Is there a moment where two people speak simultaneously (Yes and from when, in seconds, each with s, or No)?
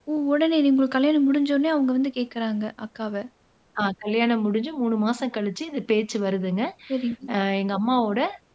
No